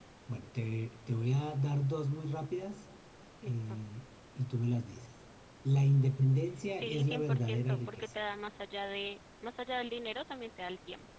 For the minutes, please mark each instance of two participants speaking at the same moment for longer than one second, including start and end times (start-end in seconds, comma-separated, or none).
6.8-8.1